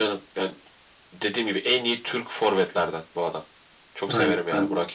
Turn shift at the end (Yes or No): Yes